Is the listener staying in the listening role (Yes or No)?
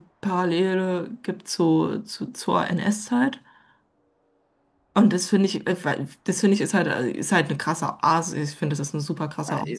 No